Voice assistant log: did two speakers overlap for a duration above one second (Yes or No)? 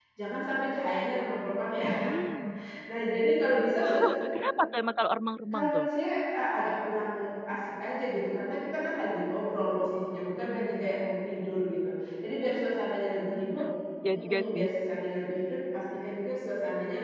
No